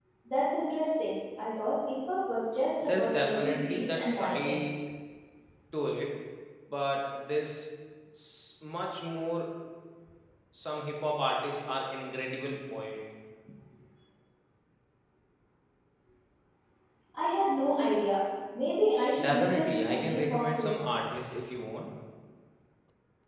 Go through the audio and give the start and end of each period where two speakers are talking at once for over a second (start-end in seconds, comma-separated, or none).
2.8-4.6, 19.2-20.8